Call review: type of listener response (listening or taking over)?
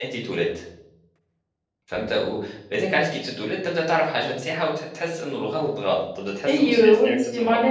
taking over